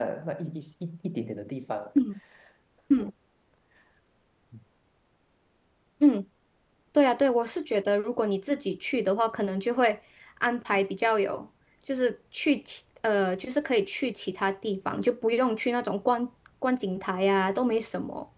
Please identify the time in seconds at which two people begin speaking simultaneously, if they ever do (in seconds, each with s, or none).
none